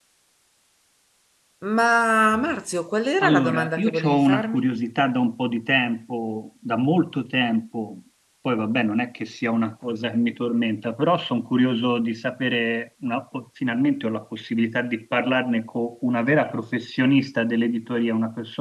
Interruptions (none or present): present